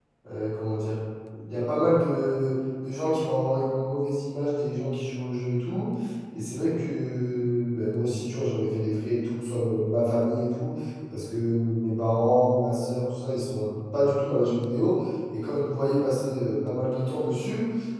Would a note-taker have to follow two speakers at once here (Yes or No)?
No